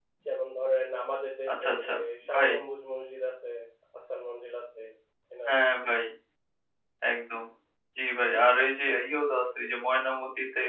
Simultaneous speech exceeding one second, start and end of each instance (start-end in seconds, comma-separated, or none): none